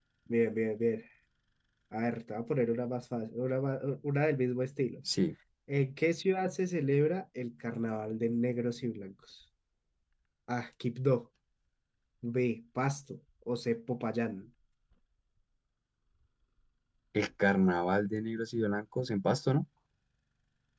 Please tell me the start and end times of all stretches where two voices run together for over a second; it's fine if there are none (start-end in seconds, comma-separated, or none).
none